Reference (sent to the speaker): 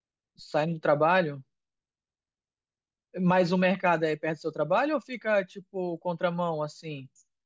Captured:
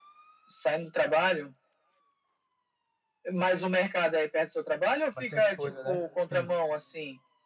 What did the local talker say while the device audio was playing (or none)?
Bastante coisa, né? Sim,